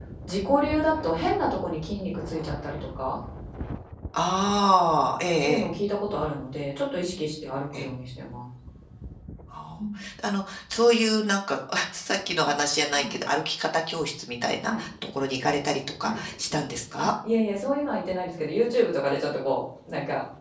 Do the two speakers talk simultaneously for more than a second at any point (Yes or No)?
No